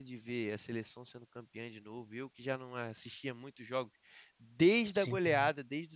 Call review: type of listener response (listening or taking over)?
listening